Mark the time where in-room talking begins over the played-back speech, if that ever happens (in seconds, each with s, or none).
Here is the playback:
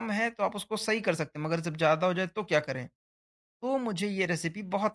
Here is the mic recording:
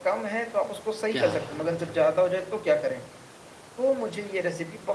1.1 s